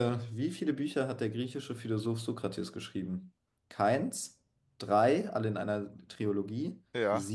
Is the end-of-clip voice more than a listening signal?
No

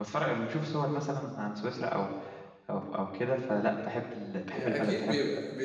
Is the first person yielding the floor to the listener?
Yes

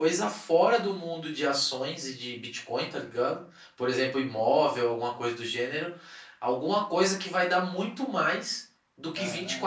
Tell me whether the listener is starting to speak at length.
No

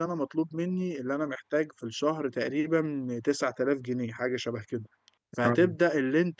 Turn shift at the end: No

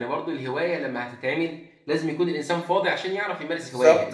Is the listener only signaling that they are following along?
No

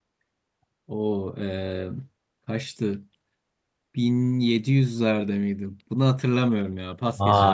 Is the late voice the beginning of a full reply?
Yes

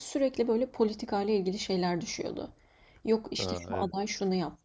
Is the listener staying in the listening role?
Yes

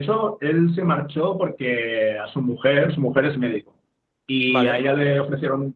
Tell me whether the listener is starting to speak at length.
No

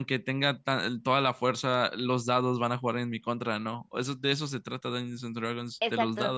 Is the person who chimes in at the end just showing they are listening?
No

